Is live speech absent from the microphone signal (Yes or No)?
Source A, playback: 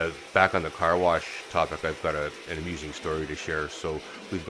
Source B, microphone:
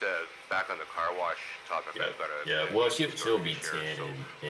No